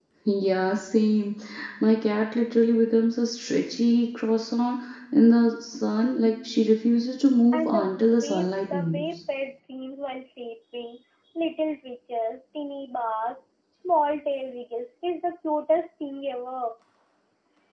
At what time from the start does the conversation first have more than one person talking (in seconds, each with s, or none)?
7.5 s